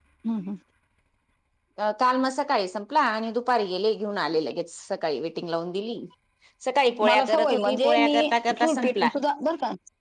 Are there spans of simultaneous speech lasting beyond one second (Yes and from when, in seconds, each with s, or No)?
Yes, from 7.1 s